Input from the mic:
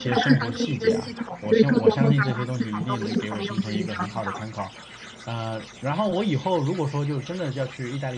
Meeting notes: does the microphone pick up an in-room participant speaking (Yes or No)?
Yes